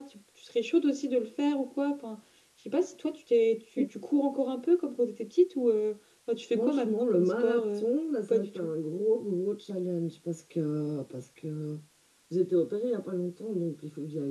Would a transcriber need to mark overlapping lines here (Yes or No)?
Yes